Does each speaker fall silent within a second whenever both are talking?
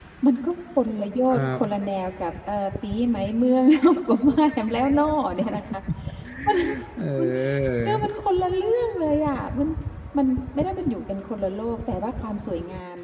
Yes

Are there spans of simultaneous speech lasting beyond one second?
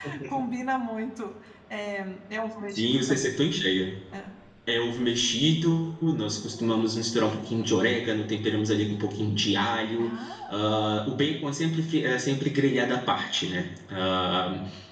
No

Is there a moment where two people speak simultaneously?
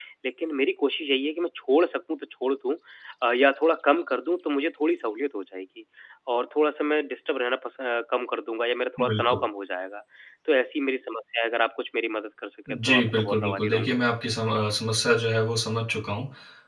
Yes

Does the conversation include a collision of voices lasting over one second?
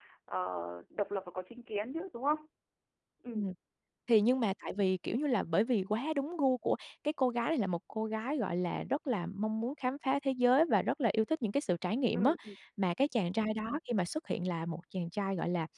No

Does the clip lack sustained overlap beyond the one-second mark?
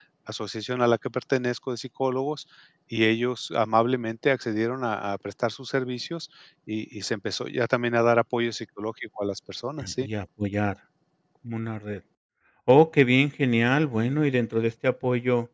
Yes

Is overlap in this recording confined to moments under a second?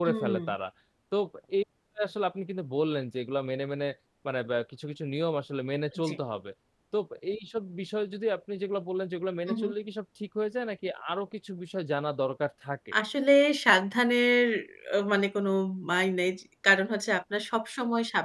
Yes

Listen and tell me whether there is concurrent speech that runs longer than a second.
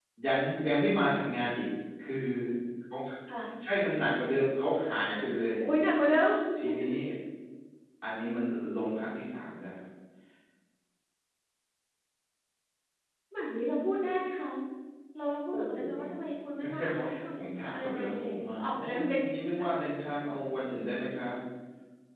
Yes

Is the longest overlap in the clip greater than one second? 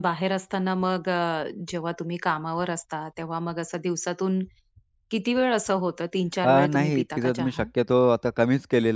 Yes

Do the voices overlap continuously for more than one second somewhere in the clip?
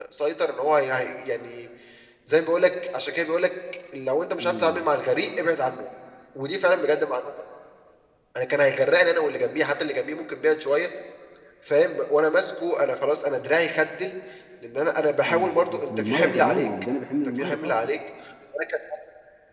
Yes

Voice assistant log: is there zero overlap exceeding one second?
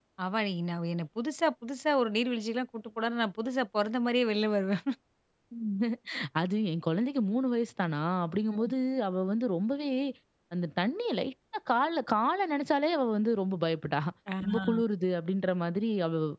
Yes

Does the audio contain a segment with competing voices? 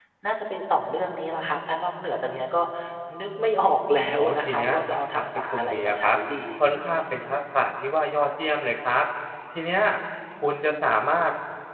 Yes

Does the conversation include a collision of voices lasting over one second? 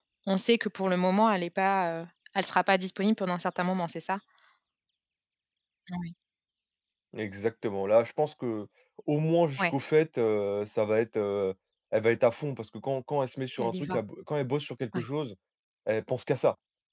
No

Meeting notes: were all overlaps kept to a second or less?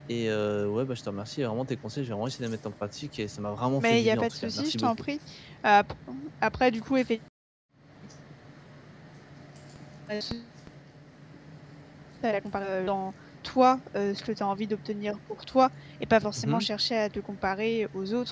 No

